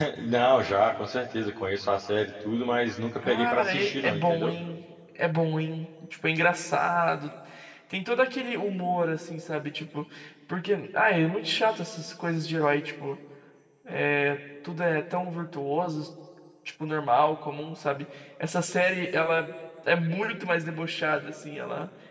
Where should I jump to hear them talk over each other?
3.2 s

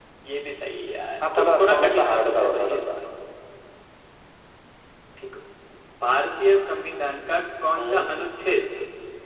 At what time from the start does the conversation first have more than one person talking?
1.4 s

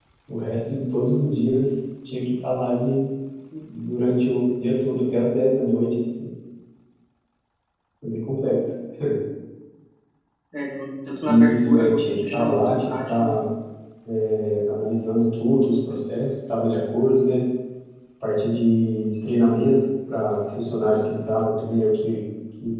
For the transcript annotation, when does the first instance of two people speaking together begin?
11.3 s

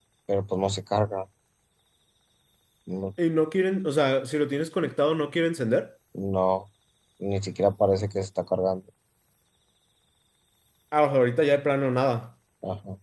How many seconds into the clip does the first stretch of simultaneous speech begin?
none

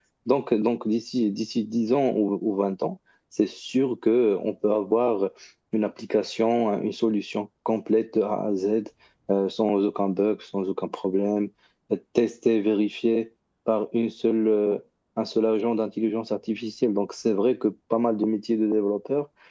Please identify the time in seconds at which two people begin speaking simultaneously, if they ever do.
none

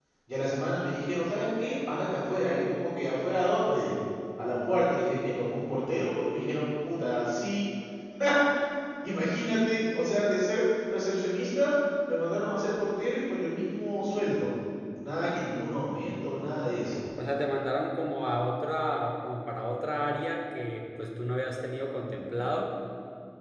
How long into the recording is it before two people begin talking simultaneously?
none

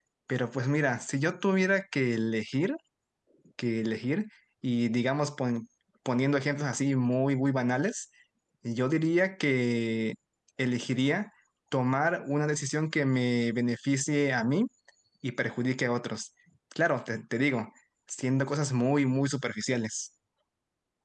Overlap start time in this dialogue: none

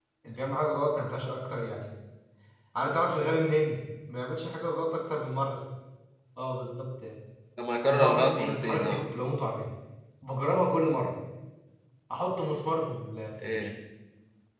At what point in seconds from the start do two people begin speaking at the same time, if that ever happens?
7.8 s

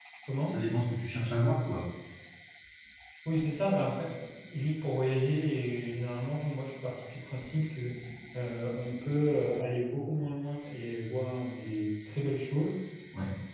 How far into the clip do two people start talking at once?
none

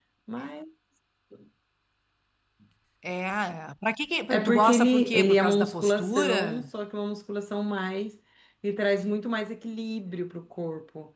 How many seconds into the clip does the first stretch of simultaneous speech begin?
4.3 s

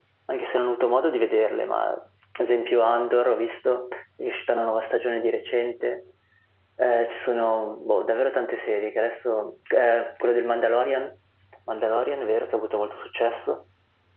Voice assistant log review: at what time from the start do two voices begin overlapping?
none

